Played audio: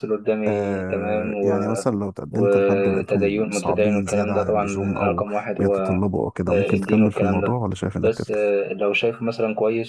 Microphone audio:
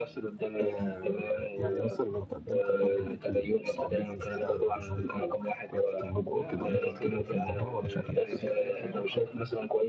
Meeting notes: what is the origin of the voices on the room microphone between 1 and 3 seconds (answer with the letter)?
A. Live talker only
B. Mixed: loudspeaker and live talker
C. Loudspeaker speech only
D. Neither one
C